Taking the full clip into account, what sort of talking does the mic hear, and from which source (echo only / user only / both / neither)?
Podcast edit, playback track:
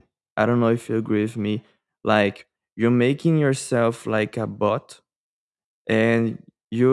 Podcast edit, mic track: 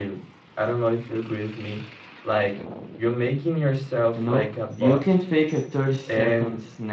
both